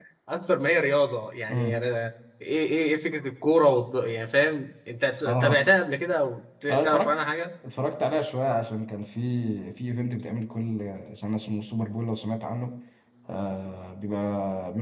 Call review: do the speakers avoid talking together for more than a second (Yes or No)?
Yes